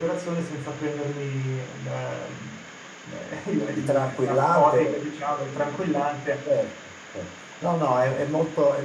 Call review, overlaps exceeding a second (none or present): present